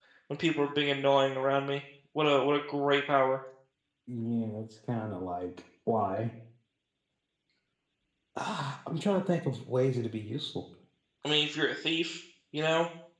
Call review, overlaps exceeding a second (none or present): none